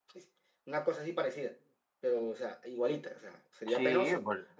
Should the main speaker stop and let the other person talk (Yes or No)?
Yes